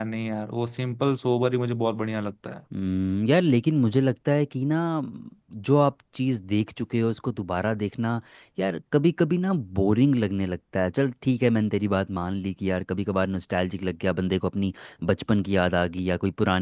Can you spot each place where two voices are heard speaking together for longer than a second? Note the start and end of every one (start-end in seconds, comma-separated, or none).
none